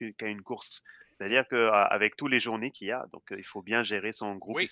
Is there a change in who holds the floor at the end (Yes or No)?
Yes